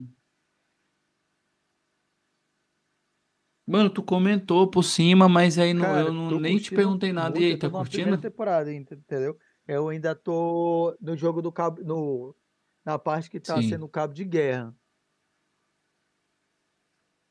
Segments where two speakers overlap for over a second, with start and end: 5.8-8.2

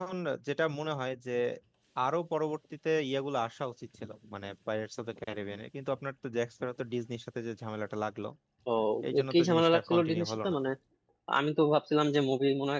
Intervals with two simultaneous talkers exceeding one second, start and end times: 9.3-10.6

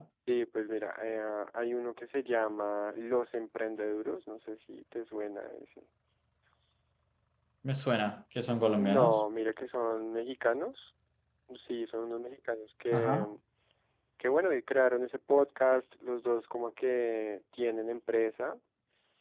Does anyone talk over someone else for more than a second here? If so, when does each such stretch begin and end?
none

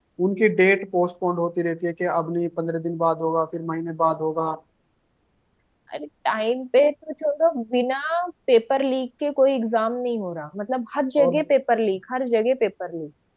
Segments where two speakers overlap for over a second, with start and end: none

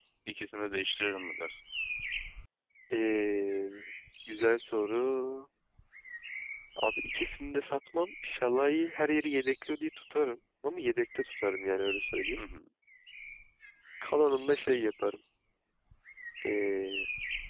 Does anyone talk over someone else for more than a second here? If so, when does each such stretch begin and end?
none

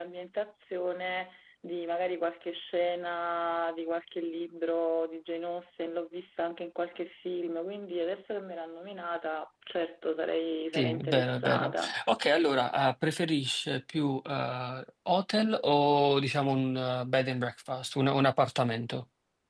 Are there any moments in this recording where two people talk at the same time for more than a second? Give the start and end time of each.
10.7-11.9

